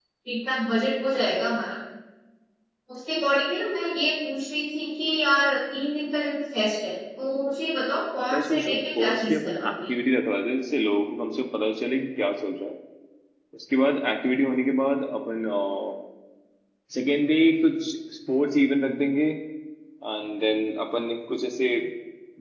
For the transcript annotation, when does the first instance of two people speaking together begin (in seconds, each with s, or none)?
8.3 s